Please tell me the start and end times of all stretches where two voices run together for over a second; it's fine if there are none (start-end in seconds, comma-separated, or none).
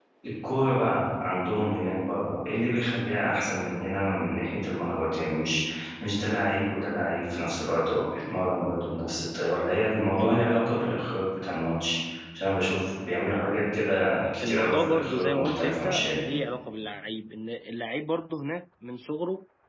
14.4-16.2